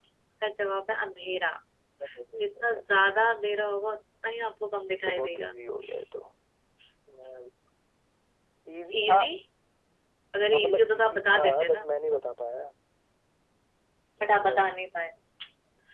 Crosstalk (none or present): present